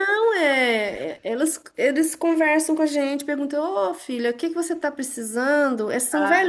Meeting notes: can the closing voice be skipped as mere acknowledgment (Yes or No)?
Yes